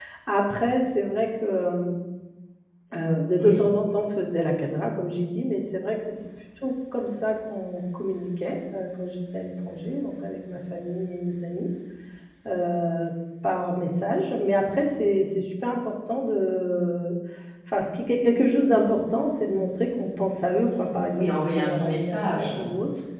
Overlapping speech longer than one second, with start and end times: 21.1-22.5

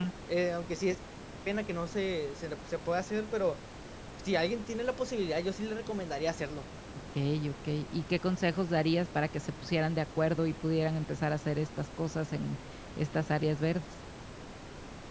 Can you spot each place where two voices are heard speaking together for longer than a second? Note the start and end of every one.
none

